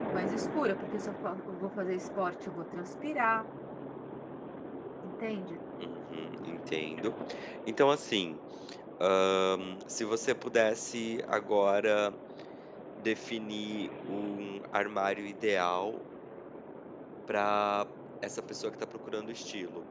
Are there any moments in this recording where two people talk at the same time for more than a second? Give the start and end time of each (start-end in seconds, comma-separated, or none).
none